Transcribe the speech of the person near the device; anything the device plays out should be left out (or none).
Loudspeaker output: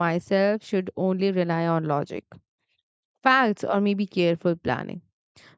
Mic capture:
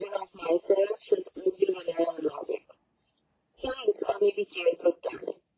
none